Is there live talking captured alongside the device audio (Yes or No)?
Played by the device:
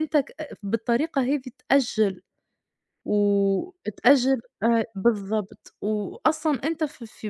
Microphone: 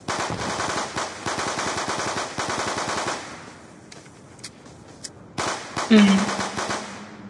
Yes